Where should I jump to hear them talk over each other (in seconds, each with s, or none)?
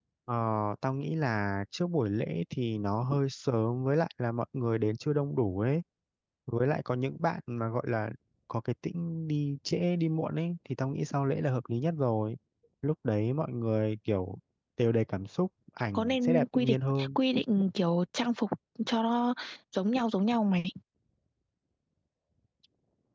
15.9 s